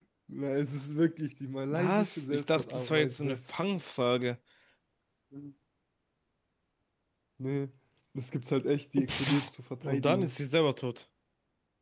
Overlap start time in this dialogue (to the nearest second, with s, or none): 2 s